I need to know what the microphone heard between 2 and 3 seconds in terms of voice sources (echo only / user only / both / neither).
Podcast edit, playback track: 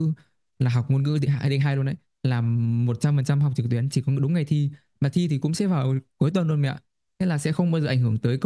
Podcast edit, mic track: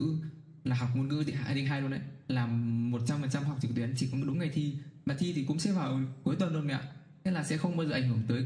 echo only